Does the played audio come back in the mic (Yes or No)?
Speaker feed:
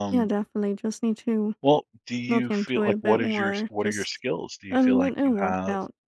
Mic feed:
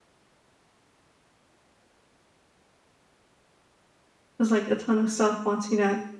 No